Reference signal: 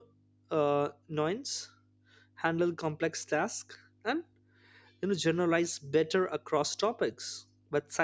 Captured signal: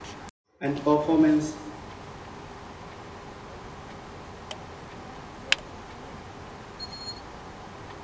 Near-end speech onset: 1 s

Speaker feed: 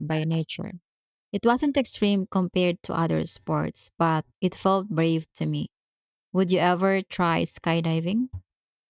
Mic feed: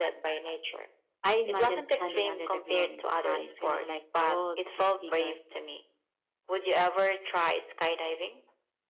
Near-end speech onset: 1 s

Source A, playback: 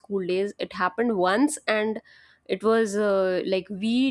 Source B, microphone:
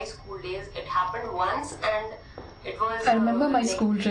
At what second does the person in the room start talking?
3 s

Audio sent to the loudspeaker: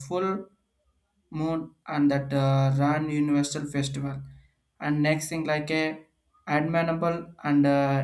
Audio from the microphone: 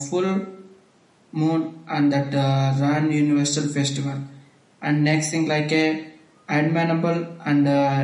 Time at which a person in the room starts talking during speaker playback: none

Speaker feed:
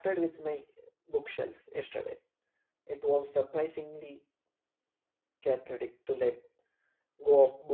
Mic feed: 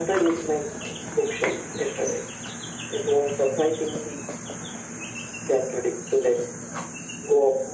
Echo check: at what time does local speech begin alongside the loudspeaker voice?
none

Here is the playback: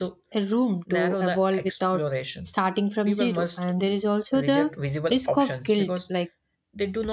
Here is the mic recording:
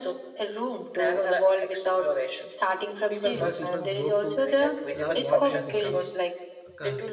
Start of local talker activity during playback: 3 s

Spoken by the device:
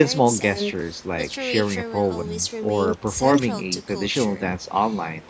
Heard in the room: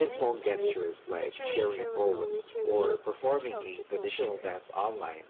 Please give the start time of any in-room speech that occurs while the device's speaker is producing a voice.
none

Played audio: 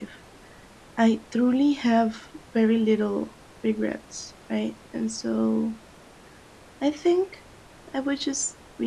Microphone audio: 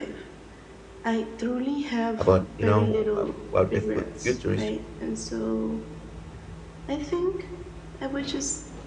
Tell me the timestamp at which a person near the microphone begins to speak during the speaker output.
2 s

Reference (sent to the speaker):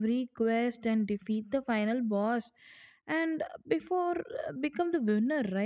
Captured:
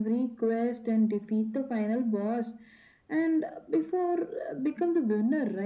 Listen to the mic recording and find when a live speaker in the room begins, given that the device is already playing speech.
none

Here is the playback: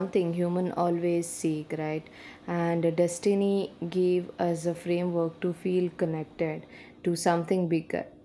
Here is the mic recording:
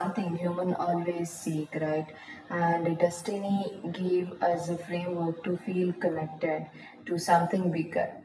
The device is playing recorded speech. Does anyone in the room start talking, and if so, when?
none

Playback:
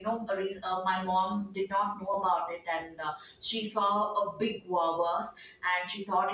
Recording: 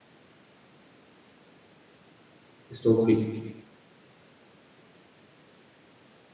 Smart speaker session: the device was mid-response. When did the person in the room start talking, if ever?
3 s

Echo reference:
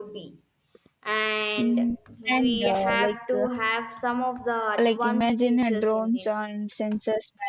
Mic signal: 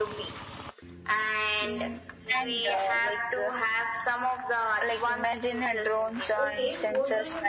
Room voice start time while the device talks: 6 s

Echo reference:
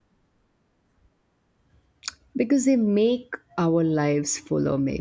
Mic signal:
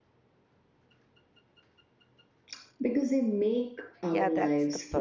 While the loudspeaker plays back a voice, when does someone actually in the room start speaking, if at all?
4 s

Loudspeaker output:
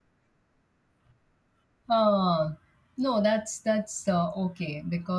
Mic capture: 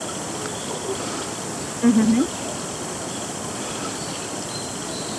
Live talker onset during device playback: 2 s

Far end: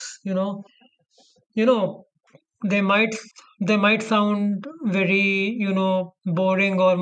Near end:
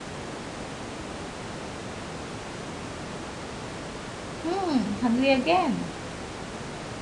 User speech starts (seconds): 4 s

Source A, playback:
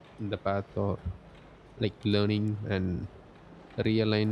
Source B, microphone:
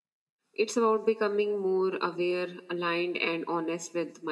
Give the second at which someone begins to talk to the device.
1 s

